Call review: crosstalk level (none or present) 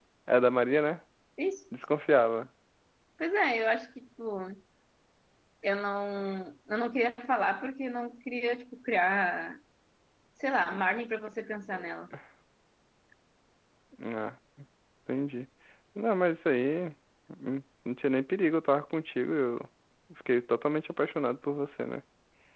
none